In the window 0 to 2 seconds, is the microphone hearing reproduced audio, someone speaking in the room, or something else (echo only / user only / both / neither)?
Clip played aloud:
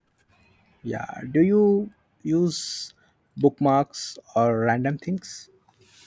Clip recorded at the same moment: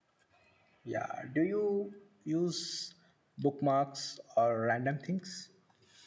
echo only